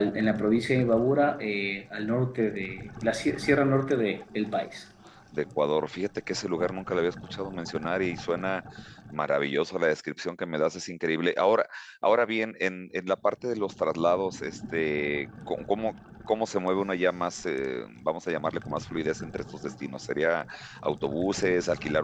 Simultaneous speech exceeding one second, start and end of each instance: none

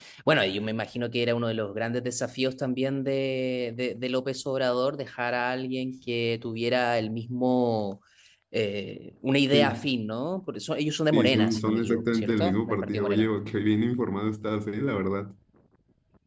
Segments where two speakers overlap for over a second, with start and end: 11.1-13.3

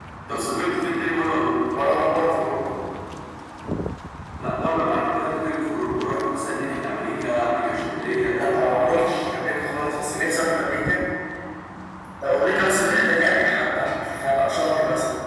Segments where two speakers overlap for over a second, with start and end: none

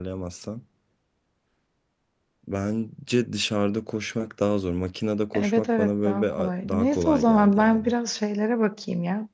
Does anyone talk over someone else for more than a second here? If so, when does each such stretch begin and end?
5.3-7.9

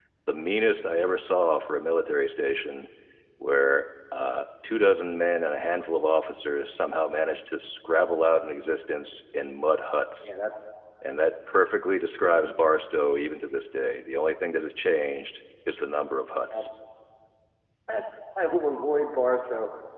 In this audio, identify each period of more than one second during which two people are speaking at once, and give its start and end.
none

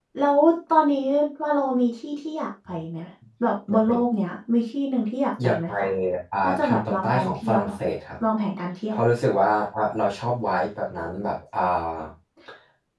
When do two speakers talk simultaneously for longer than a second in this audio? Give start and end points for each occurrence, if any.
6.4-7.7

